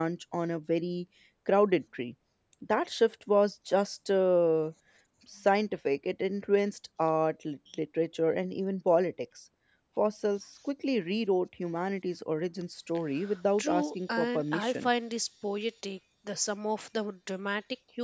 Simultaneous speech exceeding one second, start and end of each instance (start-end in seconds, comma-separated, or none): 13.6-14.9